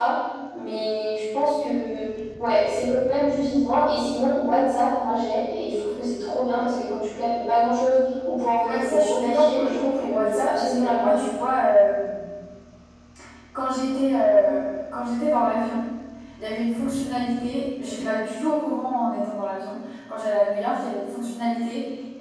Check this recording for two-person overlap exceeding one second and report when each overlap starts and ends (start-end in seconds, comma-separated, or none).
8.6-11.1